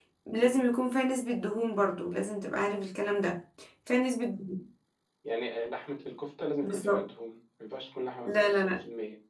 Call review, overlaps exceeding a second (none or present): none